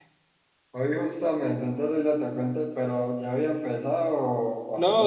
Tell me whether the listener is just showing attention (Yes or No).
No